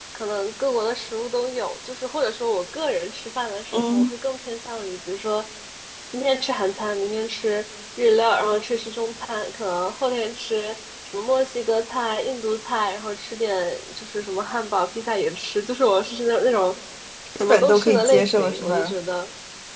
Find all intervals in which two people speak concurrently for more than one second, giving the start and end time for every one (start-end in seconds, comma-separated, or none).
17.4-18.9